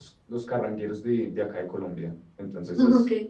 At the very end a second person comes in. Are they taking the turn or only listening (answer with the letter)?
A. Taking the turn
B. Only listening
B